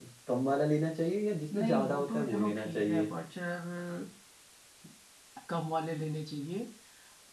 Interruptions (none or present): present